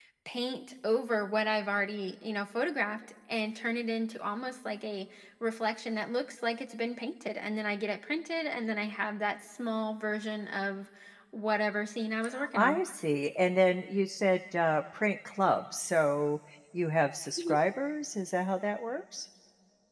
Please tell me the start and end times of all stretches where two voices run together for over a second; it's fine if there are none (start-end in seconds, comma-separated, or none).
none